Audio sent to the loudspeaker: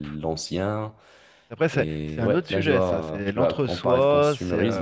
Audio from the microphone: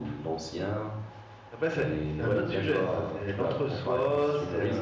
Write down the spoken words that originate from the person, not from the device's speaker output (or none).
none